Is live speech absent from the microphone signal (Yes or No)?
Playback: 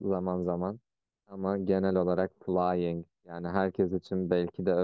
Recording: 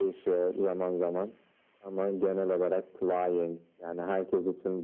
Yes